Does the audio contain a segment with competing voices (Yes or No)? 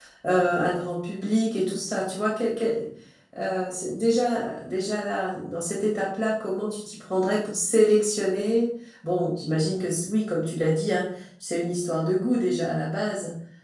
No